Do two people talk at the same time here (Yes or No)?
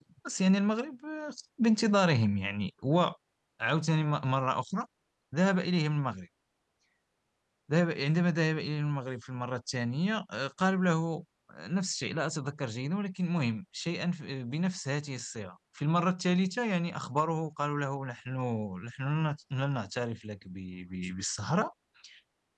No